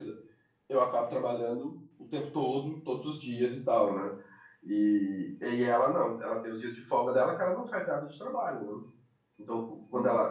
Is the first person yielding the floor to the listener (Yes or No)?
No